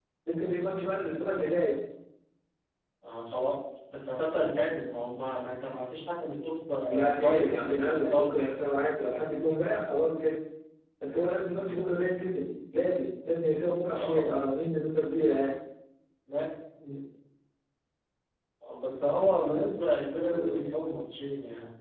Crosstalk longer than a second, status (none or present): present